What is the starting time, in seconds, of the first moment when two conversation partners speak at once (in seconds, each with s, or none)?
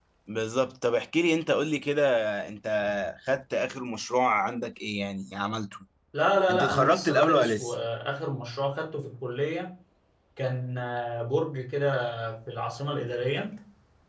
6.5 s